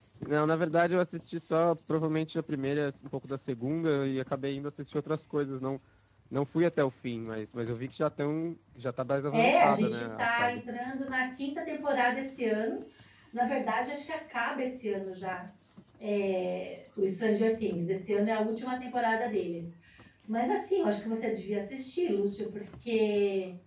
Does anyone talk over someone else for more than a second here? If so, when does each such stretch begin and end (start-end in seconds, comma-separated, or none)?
9.3-10.6